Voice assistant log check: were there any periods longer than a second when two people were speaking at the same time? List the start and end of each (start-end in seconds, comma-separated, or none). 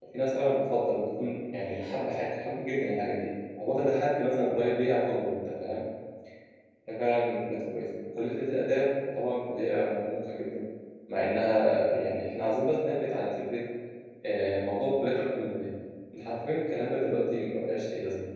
none